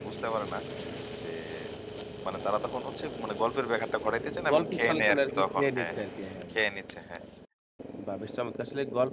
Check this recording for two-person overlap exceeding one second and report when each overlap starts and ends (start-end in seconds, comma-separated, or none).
4.5-6.0